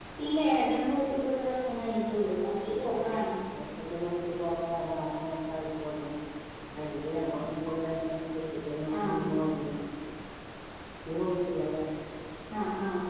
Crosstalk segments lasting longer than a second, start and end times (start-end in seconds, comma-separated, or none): none